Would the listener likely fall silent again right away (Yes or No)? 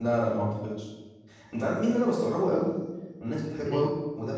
Yes